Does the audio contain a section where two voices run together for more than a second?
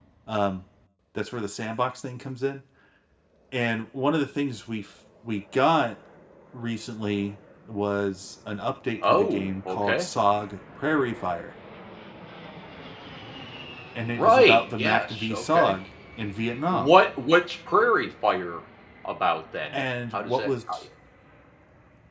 Yes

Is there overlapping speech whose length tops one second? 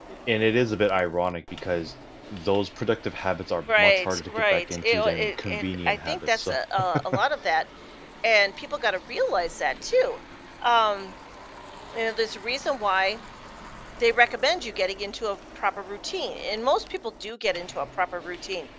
Yes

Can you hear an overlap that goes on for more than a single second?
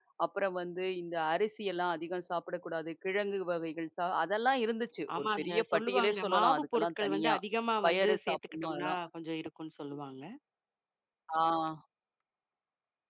Yes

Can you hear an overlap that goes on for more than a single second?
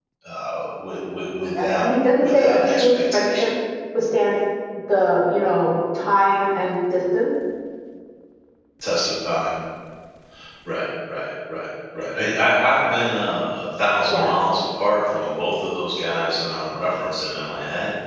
Yes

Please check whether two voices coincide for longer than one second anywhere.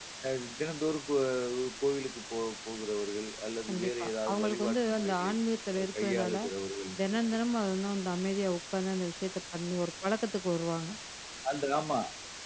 Yes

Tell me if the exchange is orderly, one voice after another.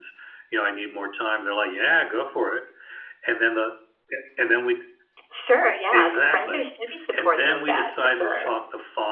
No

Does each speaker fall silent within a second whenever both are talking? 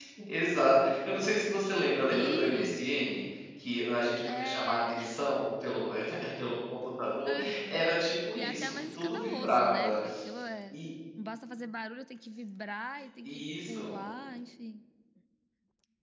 No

